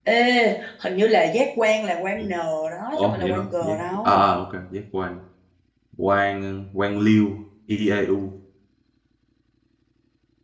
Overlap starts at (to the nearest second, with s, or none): 3 s